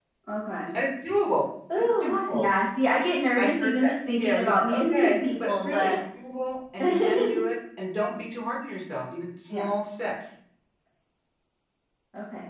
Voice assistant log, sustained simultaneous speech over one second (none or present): present